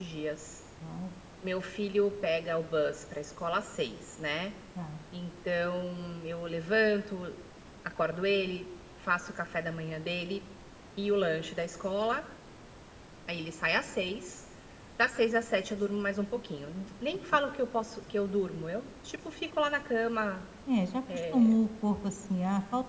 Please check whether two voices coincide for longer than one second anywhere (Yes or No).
No